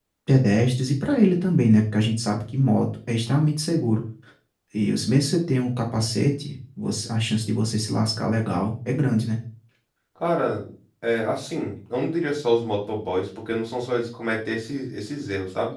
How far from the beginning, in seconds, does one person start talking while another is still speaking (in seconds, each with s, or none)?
none